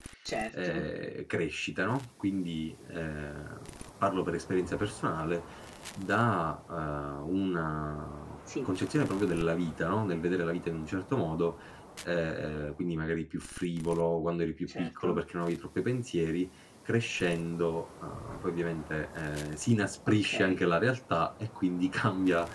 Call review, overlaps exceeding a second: none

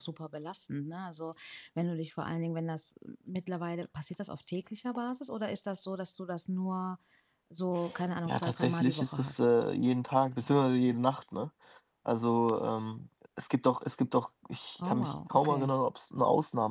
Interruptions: present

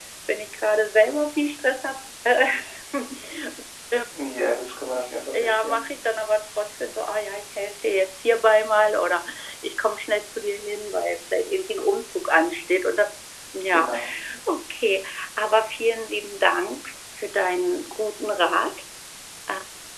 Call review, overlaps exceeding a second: none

